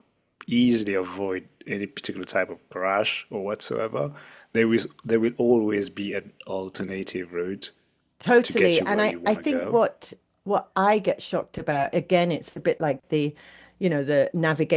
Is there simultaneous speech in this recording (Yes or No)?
Yes